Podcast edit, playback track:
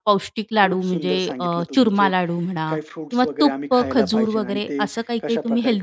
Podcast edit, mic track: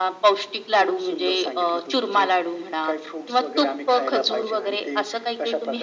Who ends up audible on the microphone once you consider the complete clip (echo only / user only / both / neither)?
echo only